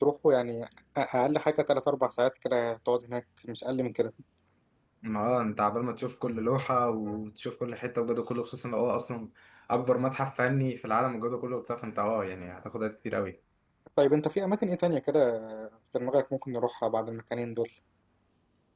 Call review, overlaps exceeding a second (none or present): none